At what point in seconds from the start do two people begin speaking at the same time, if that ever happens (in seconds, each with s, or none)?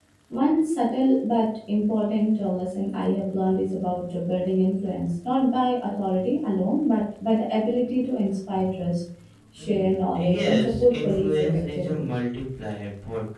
9.6 s